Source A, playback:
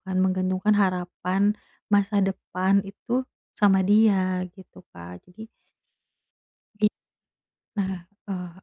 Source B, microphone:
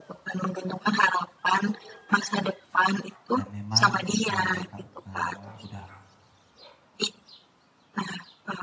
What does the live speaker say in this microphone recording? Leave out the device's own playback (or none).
dan memang ketika Kakak, eee, udah